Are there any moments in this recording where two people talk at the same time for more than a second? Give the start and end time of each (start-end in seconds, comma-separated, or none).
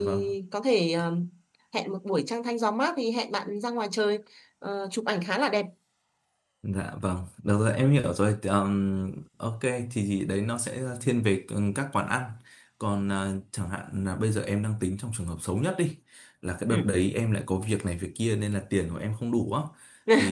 none